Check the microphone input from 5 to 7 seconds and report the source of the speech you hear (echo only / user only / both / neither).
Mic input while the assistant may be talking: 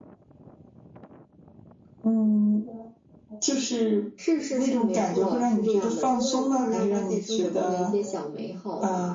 echo only